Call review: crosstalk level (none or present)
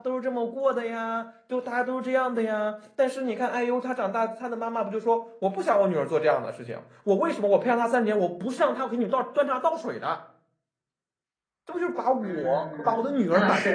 present